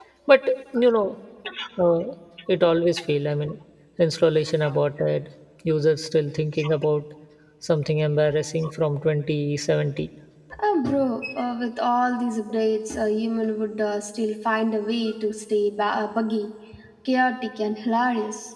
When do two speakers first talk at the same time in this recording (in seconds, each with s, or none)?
none